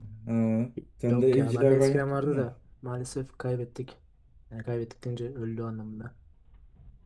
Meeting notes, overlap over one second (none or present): present